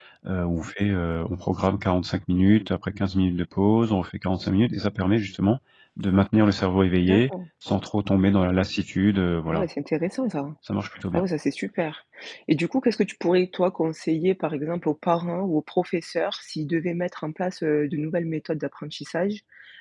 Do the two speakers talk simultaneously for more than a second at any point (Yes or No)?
No